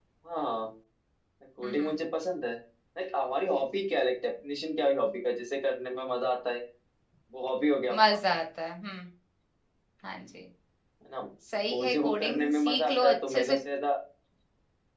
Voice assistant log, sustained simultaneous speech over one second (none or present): present